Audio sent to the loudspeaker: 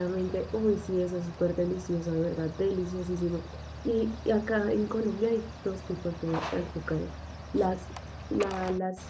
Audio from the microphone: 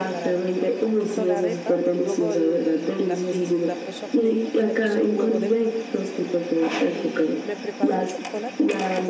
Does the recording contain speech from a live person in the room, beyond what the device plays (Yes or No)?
Yes